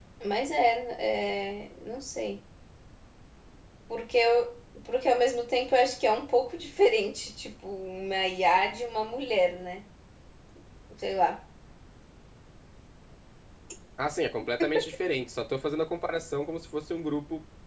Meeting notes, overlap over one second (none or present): none